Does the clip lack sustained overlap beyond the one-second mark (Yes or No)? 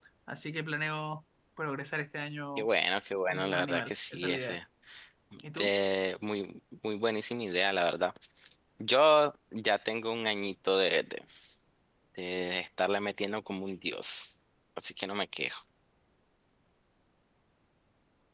No